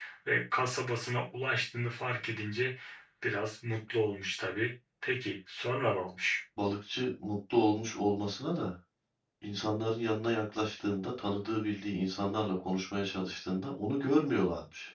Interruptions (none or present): none